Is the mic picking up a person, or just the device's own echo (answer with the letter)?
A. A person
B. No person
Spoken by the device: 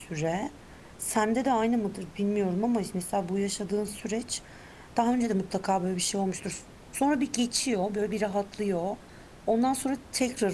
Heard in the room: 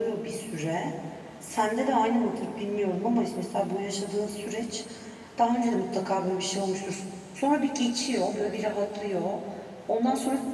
B